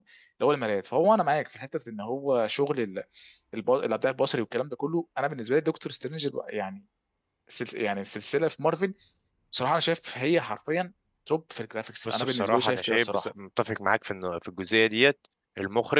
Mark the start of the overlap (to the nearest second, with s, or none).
12 s